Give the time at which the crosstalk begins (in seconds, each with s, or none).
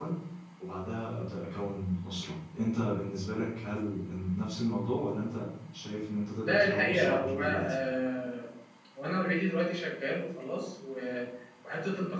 6.5 s